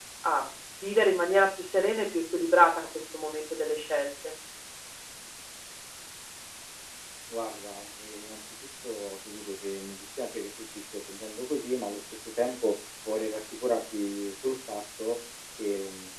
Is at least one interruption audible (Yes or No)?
No